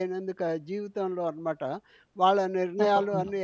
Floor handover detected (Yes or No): No